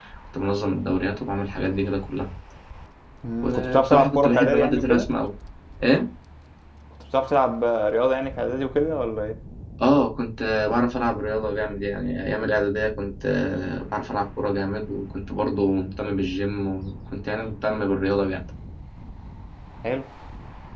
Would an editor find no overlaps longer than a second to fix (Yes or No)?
No